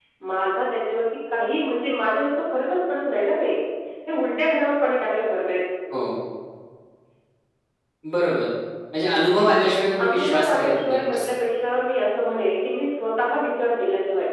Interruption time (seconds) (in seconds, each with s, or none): 10.0 s